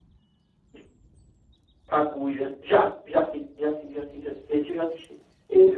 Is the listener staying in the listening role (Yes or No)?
No